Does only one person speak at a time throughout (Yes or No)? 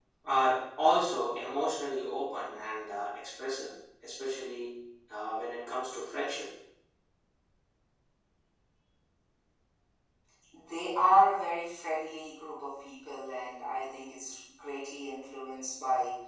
Yes